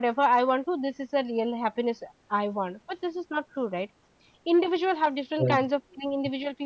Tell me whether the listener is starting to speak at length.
No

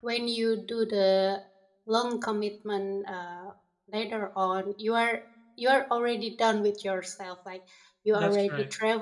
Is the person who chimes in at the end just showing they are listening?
Yes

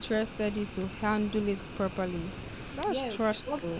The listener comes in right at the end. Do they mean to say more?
Yes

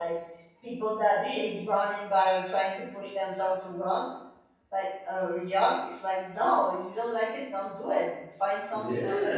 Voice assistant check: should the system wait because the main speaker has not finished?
No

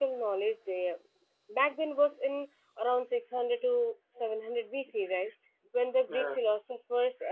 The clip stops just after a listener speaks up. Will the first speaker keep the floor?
Yes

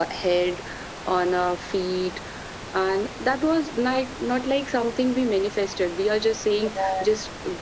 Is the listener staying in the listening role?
Yes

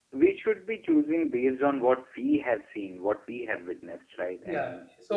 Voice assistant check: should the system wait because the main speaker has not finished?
No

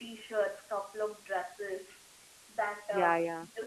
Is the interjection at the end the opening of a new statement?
Yes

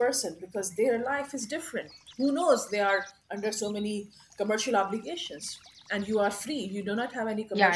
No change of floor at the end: Yes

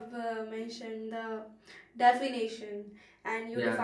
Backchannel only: Yes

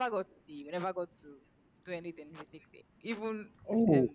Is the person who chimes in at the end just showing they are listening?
Yes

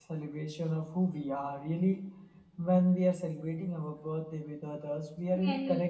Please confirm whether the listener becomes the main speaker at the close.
Yes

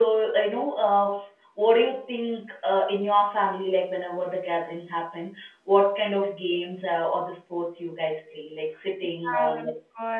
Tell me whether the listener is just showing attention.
No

